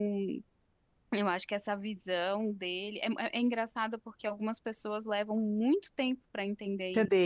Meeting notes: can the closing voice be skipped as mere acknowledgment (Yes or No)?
No